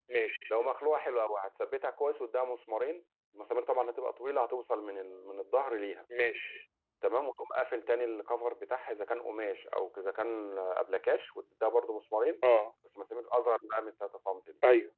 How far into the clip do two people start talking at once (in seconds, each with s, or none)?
none